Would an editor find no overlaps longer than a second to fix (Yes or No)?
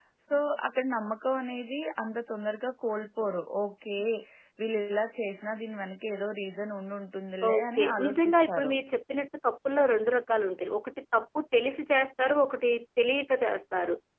No